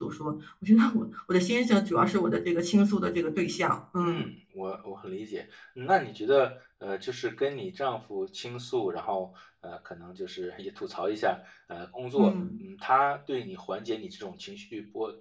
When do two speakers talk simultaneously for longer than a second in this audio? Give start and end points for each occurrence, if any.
none

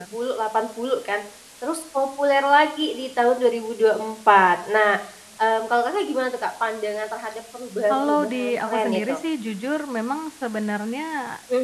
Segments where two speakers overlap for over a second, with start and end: 7.9-9.2

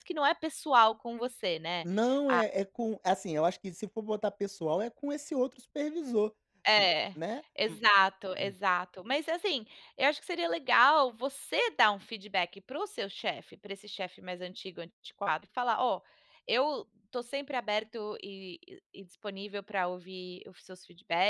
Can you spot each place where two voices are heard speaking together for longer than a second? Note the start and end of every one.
none

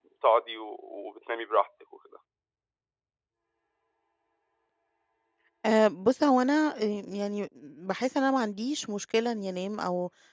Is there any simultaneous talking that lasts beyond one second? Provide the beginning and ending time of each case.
none

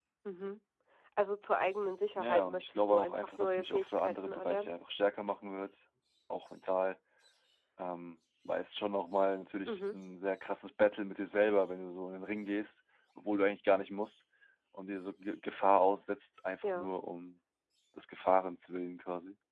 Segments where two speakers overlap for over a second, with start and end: 2.1-4.7

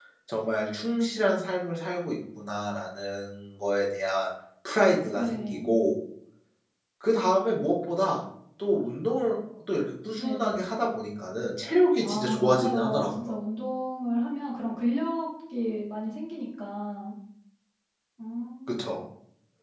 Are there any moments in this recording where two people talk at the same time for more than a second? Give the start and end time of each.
12.0-13.3

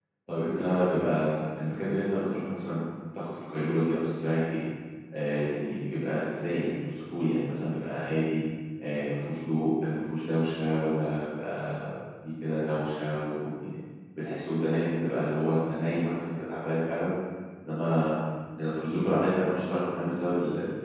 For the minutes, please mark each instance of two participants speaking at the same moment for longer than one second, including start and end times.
none

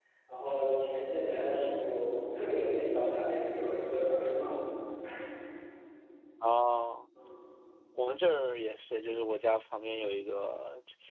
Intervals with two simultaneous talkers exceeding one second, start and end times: none

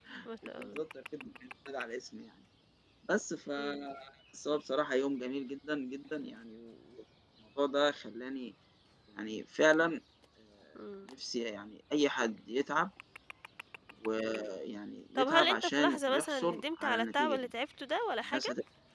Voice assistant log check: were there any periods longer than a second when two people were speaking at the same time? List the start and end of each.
15.2-17.5

